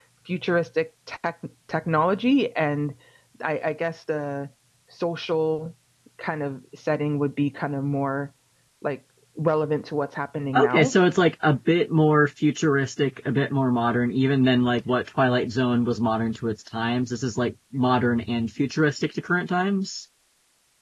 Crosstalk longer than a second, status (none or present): none